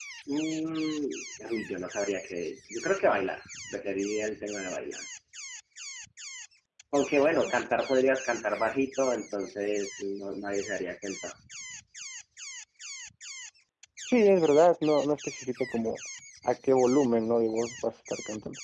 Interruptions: none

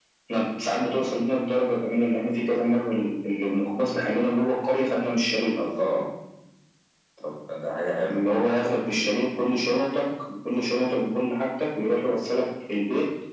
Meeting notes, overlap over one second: none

